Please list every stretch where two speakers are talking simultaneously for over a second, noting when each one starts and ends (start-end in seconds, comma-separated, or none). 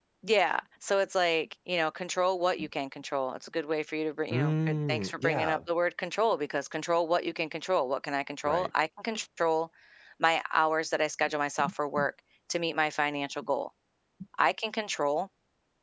4.3-5.6